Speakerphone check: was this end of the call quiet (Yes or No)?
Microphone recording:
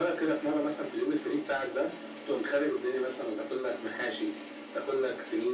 Yes